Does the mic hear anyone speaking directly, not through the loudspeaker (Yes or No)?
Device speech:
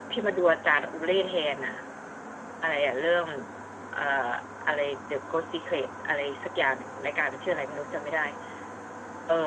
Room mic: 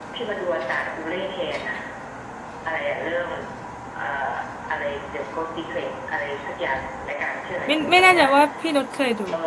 Yes